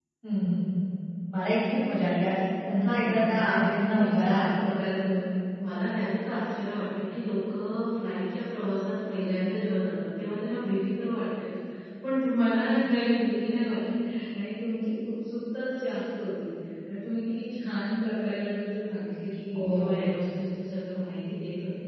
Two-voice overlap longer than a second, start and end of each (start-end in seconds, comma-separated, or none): 2.9-4.5